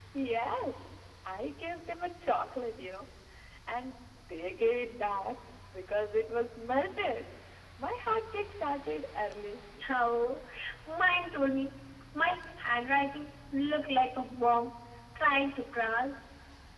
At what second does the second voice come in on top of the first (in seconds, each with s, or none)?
none